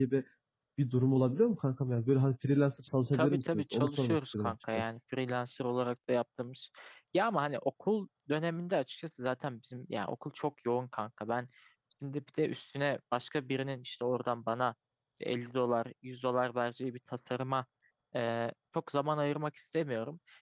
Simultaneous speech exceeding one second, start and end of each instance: 3.1-4.8

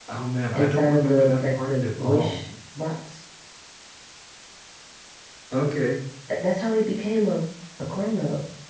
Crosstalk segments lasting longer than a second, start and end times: 0.5-2.4

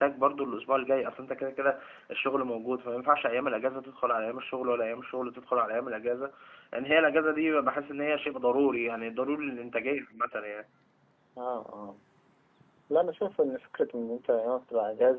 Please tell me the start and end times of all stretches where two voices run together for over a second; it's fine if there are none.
none

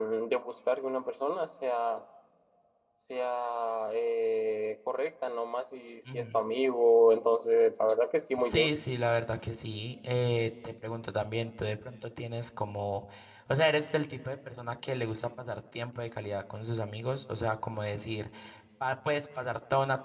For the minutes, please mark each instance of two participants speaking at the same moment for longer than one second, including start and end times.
none

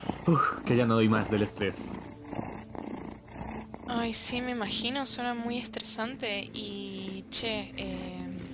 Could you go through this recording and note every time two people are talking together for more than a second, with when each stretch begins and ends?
none

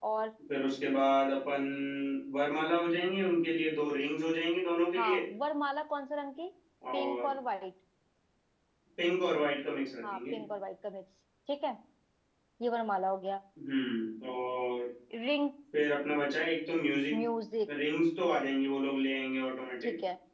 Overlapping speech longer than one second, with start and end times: none

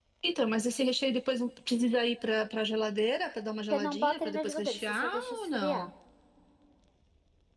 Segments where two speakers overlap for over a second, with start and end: 3.7-5.9

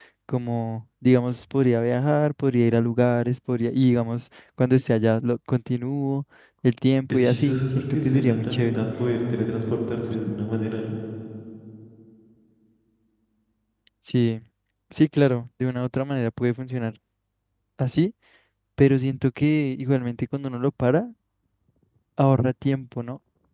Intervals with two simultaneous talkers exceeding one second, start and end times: 7.1-8.8

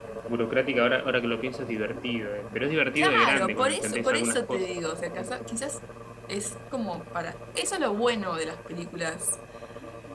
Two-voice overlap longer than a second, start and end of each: 3.0-4.6

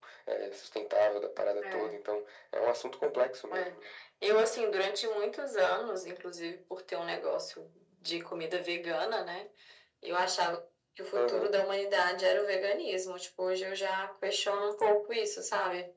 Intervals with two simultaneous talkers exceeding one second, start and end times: none

